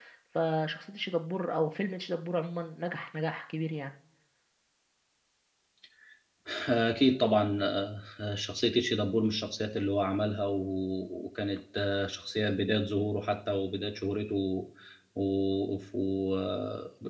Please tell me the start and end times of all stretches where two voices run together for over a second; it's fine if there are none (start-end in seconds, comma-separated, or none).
none